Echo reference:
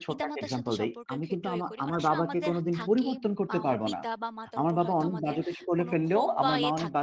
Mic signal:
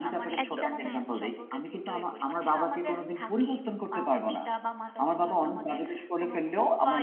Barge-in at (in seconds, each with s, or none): 0.4 s